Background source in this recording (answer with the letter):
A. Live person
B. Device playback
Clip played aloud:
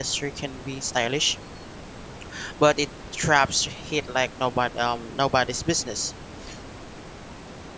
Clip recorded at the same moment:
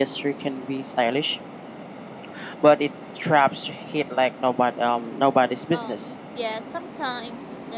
A